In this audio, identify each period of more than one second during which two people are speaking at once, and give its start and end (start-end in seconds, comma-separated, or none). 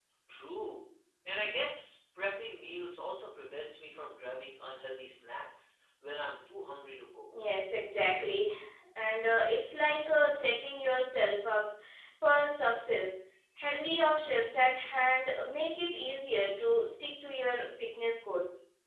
none